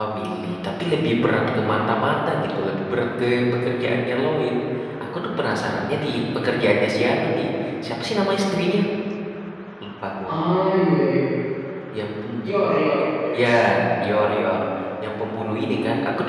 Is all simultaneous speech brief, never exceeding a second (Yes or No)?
Yes